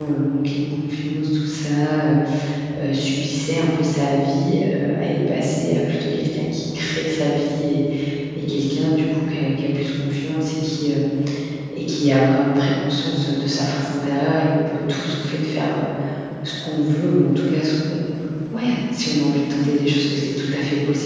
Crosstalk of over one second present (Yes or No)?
No